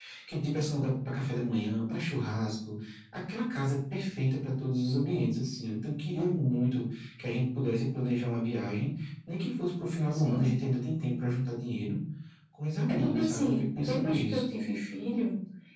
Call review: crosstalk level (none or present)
present